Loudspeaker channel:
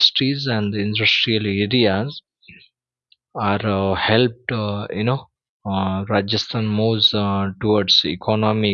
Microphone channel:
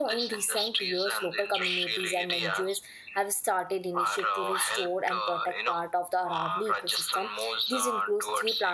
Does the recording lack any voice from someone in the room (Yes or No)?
No